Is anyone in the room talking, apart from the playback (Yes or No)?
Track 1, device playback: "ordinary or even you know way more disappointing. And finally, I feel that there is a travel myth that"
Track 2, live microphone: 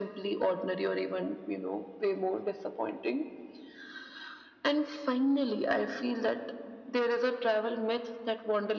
No